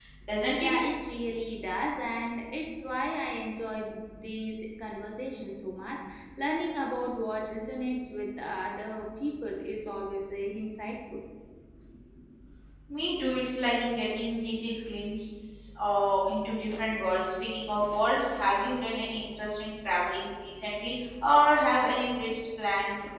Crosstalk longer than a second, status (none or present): none